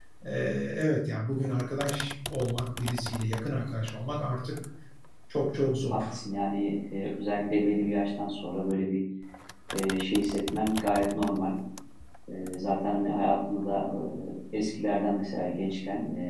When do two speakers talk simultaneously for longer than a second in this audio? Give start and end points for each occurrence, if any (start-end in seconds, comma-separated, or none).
none